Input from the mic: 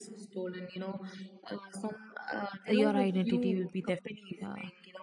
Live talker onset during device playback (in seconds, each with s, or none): 2.7 s